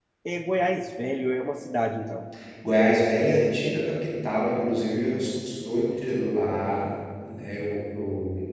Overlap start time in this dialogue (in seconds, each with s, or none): none